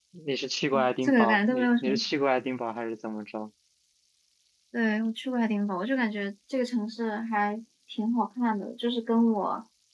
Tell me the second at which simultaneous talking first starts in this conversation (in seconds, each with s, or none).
0.7 s